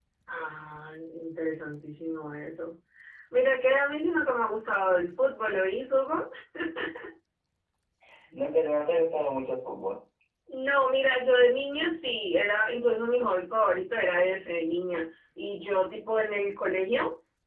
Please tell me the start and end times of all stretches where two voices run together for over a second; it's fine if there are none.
none

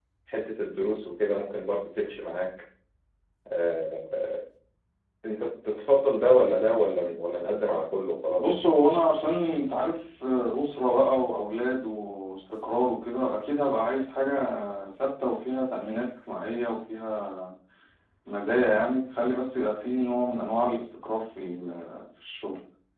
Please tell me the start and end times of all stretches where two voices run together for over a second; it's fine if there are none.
none

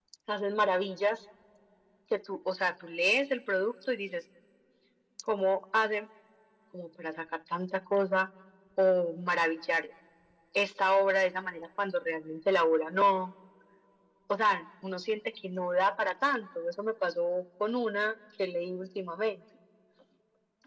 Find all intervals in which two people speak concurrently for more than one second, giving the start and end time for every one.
none

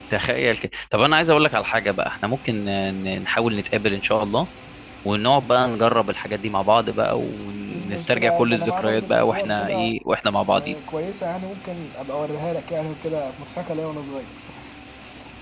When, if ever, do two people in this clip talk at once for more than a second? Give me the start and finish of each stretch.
7.7-10.0

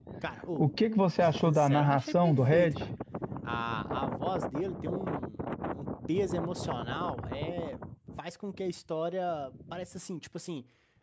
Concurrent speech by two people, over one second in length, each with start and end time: 1.2-2.7

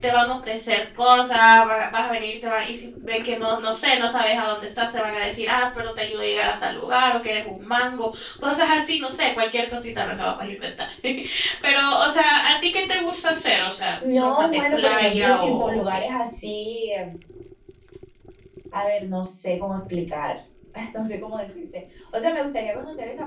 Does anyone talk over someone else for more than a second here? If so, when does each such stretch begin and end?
14.1-16.0

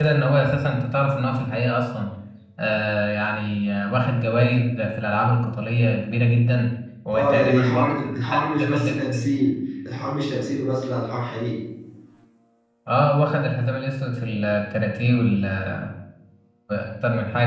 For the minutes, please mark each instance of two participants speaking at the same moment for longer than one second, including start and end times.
7.1-9.3

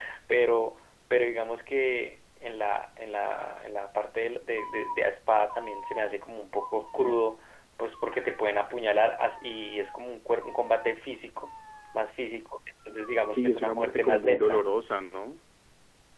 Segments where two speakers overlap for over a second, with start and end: 13.3-14.6

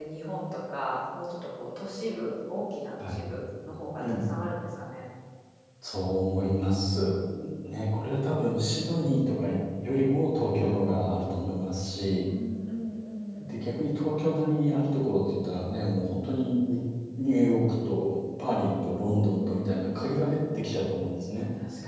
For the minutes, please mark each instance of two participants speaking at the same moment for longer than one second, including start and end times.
18.5-20.7

